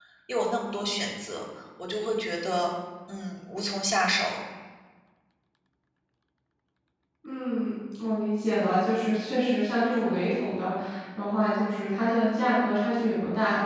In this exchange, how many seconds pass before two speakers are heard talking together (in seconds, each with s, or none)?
none